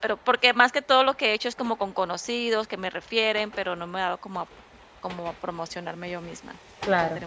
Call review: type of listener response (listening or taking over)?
taking over